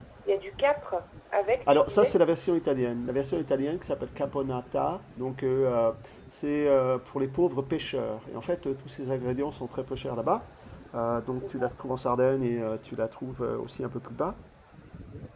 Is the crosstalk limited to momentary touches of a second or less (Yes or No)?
Yes